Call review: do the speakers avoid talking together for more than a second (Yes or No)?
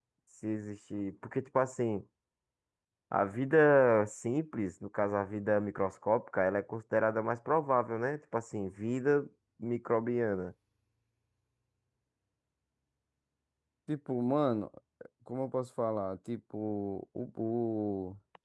Yes